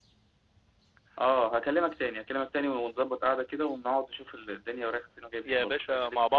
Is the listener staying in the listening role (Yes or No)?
No